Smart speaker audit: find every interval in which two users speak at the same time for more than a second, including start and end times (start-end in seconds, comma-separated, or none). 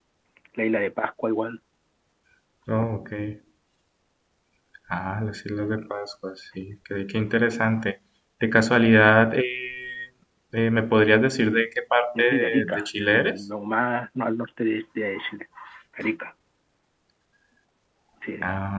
12.2-13.4